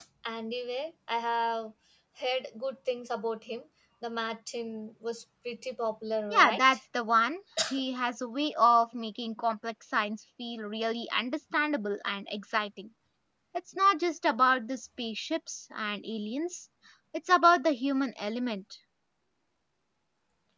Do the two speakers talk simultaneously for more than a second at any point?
No

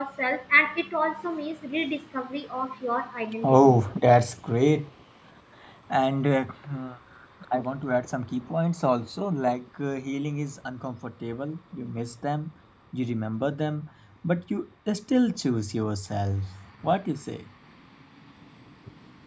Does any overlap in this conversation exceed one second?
No

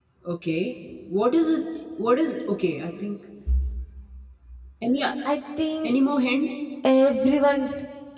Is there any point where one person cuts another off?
No

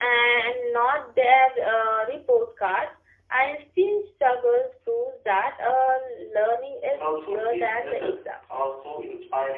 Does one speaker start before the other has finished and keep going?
Yes, from 6.9 s

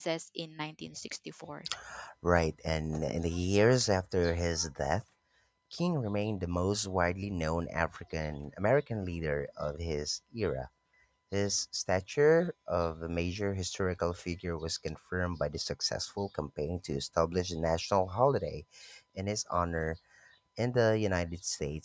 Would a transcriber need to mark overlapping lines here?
No

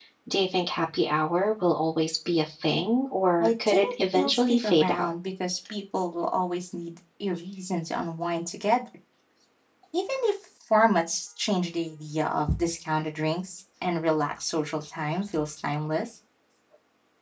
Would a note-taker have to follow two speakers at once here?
Yes, from 3.4 s

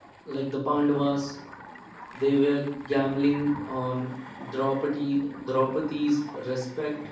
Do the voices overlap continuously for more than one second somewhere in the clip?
No

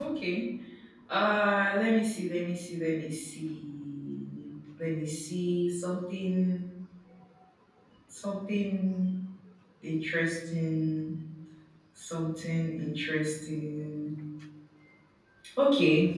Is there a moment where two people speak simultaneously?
No

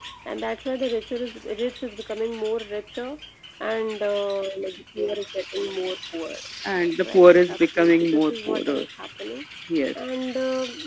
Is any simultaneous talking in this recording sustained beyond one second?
Yes, from 6.8 s

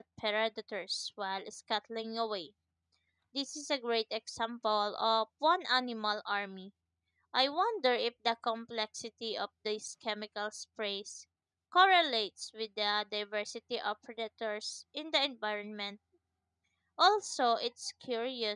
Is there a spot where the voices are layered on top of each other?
No

